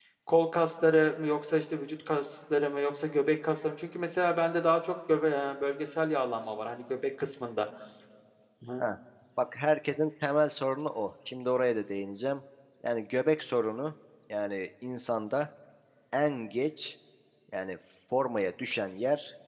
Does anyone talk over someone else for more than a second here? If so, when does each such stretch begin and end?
none

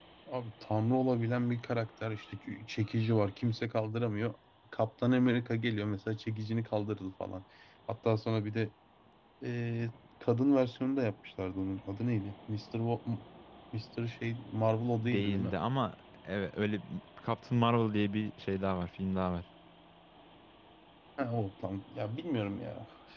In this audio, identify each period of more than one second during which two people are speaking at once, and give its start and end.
none

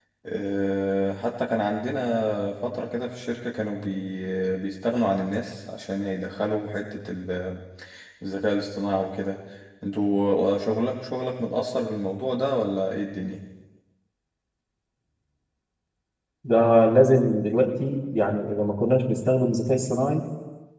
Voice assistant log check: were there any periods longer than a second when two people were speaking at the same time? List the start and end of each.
none

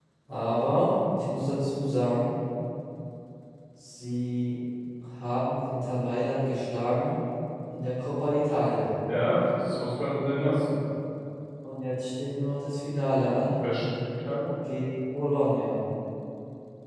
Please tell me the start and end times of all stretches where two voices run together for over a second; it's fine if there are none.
none

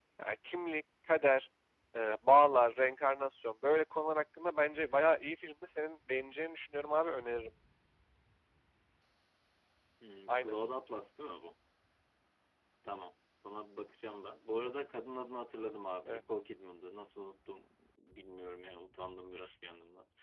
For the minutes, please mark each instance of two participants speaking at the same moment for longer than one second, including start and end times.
none

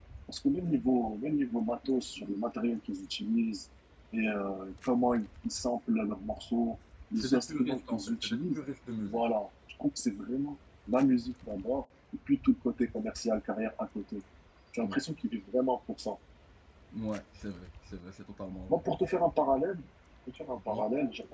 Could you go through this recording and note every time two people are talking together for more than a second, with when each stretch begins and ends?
7.2-8.6

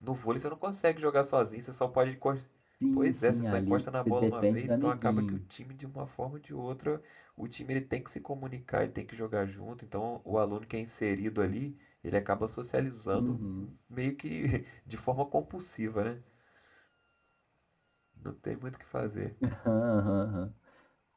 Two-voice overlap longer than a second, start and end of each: 2.9-5.4

